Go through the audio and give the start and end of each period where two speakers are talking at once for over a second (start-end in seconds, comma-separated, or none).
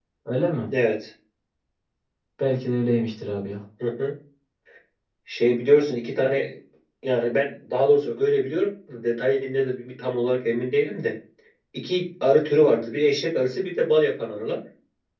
none